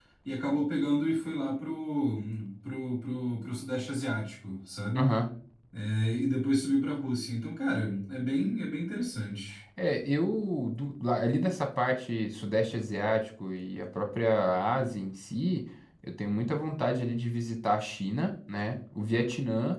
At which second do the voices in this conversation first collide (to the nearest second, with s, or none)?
none